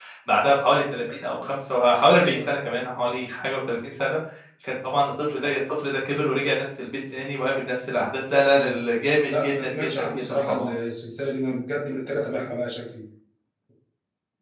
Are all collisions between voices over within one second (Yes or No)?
No